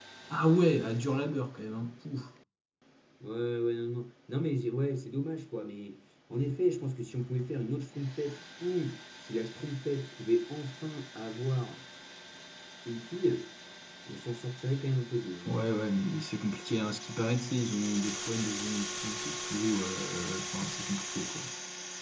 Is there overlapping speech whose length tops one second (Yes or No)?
No